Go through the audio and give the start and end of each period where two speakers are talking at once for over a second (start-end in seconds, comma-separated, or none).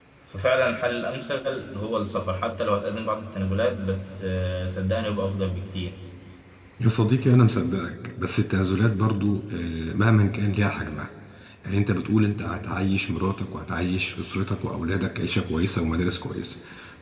none